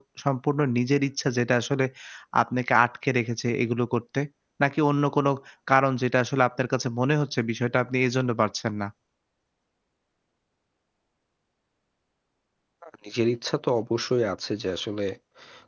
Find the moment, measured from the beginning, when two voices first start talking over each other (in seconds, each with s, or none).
none